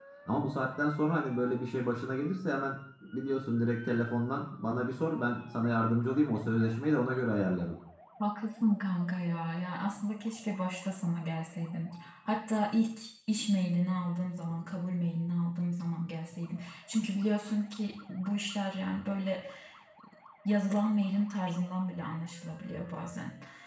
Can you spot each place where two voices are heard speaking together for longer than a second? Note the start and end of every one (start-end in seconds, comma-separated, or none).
none